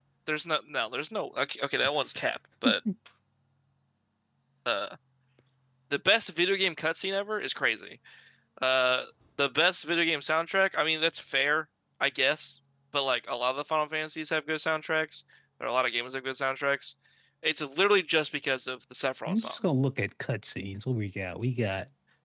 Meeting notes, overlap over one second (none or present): none